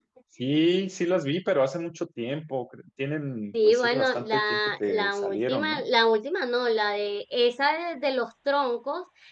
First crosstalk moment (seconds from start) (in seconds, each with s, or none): 3.5 s